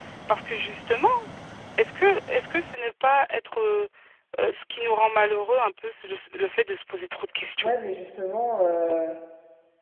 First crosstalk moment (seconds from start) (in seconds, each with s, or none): none